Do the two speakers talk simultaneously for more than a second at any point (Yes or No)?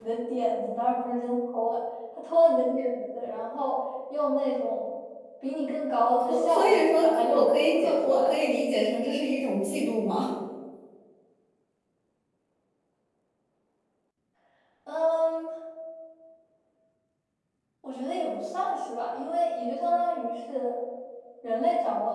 Yes